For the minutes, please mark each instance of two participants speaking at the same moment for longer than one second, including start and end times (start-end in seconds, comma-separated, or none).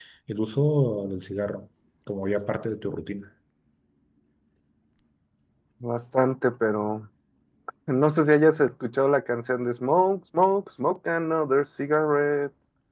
none